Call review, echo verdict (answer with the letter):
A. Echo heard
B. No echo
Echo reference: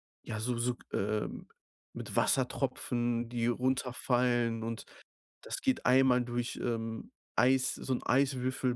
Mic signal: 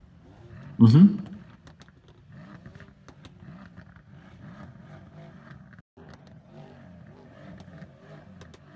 B